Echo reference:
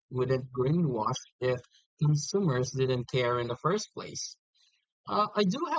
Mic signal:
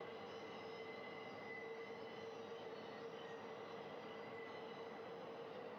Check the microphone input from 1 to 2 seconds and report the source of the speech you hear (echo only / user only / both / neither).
neither